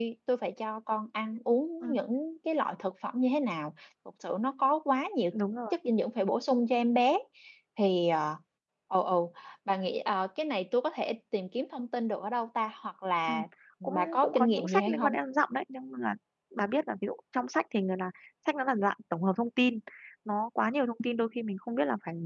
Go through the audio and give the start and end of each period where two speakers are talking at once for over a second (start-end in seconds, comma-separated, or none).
13.8-15.2